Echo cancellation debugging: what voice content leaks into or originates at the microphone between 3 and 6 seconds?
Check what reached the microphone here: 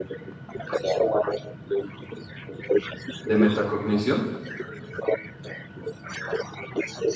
both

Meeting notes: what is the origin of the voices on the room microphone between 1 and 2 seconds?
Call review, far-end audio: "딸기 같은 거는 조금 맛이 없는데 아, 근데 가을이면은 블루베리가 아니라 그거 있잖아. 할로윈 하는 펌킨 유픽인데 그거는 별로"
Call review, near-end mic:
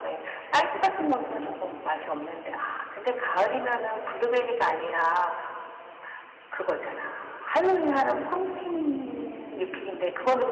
echo only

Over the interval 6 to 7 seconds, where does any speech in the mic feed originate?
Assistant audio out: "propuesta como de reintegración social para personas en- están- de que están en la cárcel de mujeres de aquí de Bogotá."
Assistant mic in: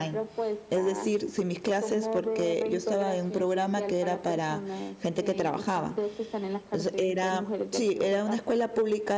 both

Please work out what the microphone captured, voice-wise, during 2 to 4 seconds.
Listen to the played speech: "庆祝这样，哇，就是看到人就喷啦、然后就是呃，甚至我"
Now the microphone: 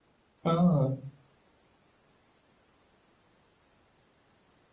neither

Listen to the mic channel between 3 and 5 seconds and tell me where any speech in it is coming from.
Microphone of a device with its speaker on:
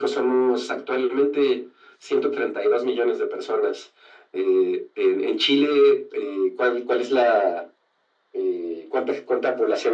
echo only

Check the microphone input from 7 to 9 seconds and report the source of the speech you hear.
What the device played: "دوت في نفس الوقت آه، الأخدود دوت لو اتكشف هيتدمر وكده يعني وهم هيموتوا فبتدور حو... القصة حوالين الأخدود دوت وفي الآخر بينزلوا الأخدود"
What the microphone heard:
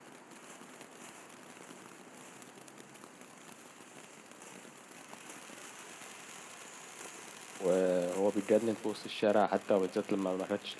user only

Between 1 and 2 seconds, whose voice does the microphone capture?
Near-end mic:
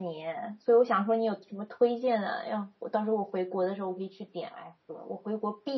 user only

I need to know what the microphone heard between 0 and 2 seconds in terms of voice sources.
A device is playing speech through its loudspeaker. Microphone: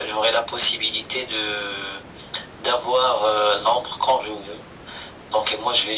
echo only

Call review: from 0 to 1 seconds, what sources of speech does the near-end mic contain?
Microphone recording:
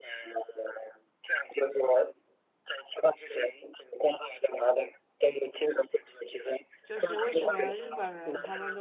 echo only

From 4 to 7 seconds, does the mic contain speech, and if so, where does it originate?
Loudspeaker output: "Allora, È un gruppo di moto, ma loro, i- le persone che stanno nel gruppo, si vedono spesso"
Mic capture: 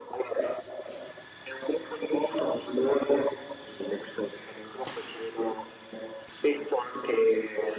echo only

